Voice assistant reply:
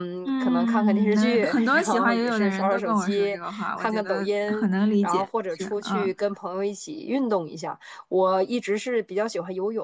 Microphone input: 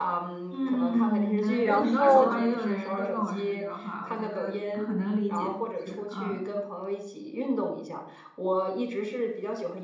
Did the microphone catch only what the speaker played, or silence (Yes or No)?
No